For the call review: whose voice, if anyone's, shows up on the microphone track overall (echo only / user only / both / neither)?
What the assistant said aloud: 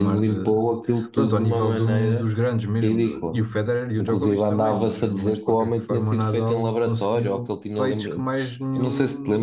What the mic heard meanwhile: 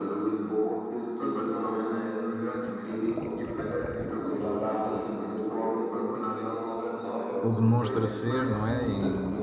both